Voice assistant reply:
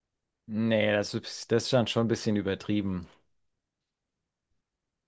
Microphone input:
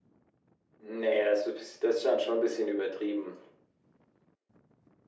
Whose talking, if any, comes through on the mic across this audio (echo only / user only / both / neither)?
echo only